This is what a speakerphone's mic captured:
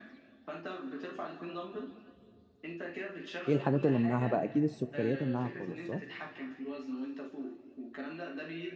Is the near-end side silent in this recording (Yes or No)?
No